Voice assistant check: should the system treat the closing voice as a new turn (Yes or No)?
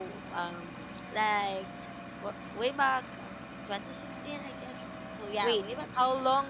Yes